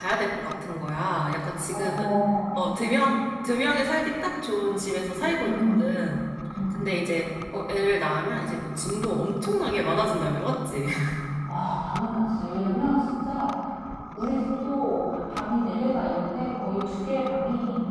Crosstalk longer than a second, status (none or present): none